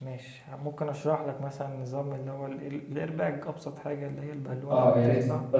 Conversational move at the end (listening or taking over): taking over